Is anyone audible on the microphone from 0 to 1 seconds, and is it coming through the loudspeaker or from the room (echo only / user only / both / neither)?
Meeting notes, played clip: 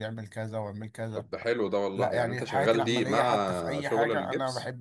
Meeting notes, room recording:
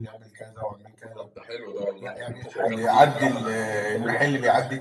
echo only